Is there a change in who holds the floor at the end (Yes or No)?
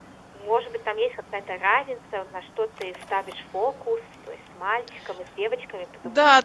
Yes